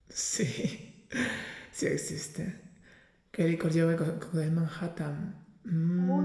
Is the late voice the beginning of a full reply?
Yes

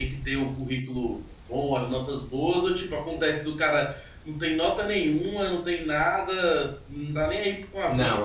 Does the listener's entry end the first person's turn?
Yes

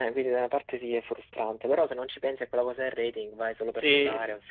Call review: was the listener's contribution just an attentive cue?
No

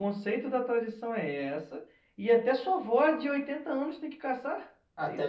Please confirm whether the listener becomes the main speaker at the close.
Yes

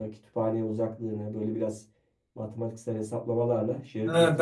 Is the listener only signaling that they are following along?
No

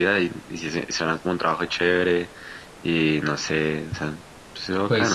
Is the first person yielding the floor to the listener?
Yes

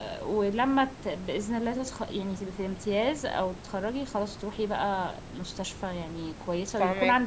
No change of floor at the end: Yes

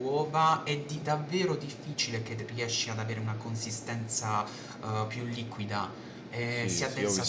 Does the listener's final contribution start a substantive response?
Yes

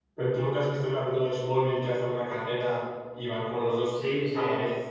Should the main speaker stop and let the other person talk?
Yes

